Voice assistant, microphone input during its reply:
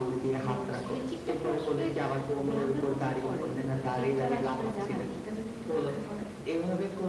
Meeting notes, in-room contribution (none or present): none